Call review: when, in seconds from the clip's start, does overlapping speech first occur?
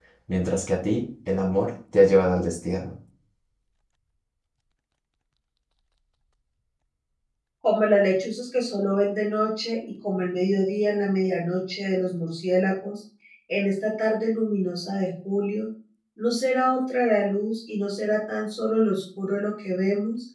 none

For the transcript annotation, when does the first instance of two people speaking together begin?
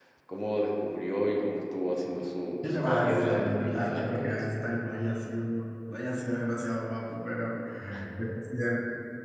2.6 s

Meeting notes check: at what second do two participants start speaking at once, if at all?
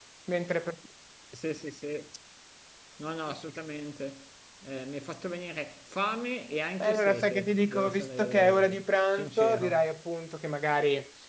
6.8 s

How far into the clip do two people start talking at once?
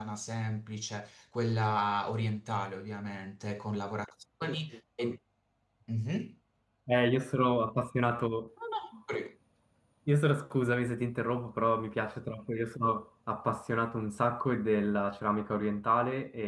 none

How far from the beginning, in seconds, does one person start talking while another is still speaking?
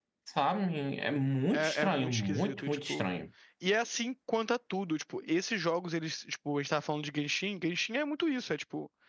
1.5 s

